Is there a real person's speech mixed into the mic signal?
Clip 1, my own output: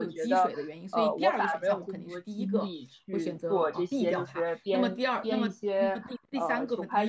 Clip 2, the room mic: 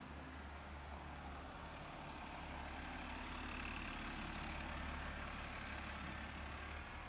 No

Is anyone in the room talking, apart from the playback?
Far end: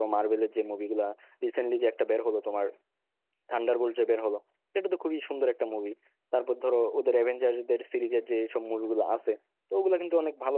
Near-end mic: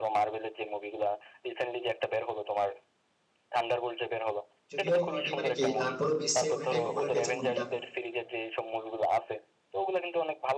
Yes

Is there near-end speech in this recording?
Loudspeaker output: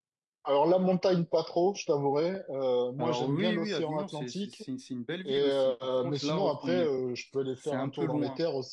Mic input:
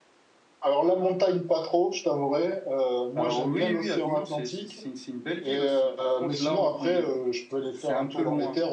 No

